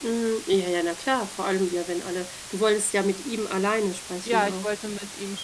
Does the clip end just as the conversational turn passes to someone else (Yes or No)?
Yes